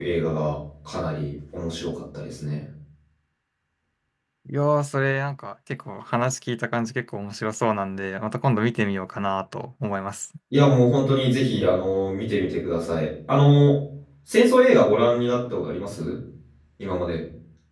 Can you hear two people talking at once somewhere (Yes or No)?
No